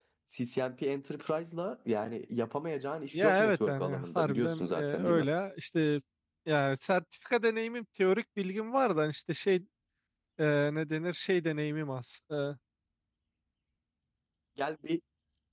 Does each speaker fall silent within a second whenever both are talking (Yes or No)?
No